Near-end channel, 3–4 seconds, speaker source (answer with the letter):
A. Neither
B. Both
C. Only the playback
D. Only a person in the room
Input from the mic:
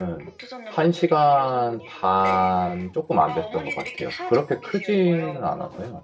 B